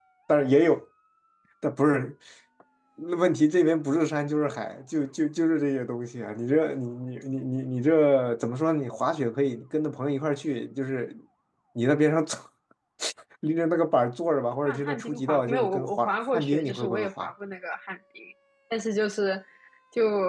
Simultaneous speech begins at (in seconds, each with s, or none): 14.6 s